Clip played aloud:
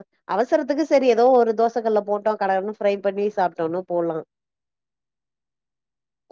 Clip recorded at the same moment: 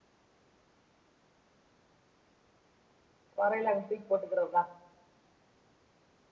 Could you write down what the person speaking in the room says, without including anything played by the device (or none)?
வரயில அங்க தூக்கி போட்டுக்கிறத